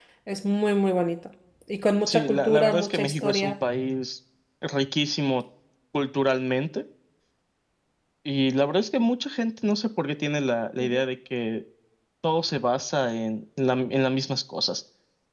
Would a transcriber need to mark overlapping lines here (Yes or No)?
Yes